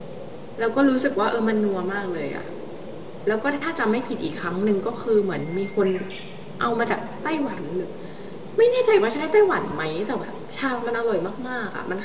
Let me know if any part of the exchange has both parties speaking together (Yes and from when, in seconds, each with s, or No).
No